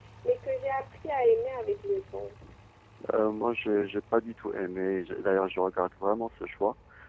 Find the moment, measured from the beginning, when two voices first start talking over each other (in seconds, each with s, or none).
none